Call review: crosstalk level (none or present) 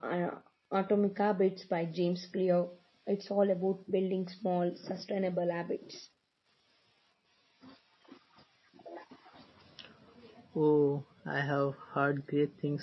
none